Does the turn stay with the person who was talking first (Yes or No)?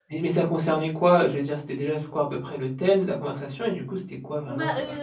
No